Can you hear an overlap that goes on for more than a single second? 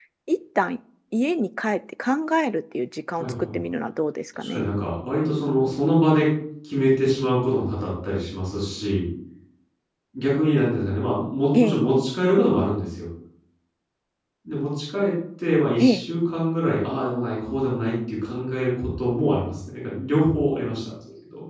No

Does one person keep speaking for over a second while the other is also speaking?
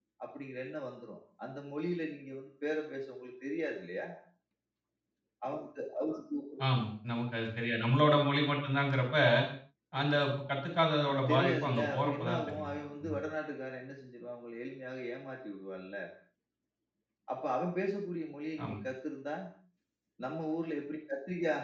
Yes, from 11.1 s

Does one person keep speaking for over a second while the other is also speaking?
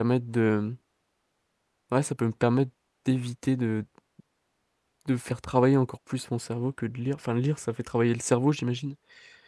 No

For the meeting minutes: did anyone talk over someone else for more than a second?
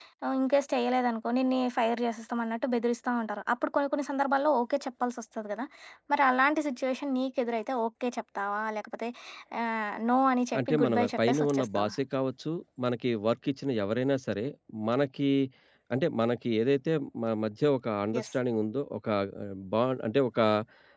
Yes, from 10.5 s

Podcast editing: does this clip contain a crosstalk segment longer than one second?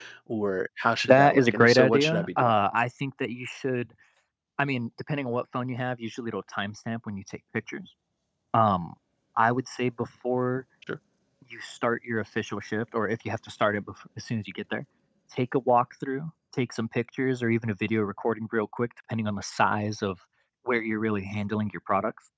Yes, from 1.0 s

